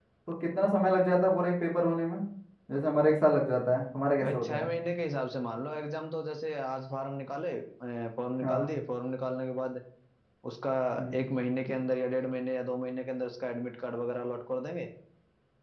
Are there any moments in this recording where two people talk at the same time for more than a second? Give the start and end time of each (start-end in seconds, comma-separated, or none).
none